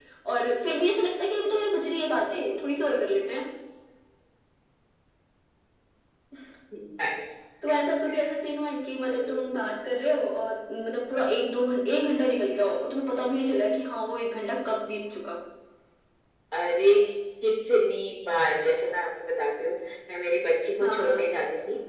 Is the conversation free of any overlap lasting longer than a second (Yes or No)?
Yes